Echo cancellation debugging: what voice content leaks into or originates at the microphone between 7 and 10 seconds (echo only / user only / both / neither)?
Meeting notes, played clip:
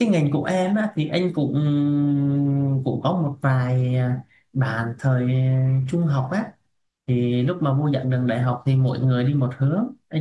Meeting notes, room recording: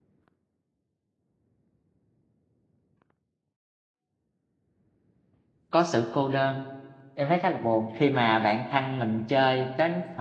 user only